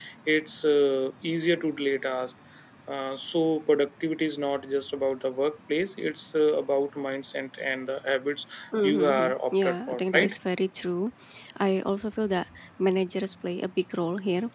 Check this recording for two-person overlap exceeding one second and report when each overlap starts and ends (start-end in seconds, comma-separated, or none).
8.8-10.3